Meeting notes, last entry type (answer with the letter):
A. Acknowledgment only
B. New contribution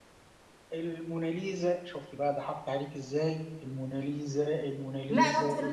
B